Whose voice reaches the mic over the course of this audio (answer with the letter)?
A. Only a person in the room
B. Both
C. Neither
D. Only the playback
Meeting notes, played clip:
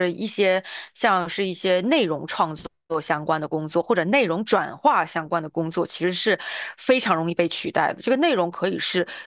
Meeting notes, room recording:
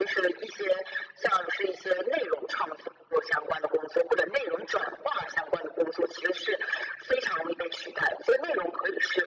D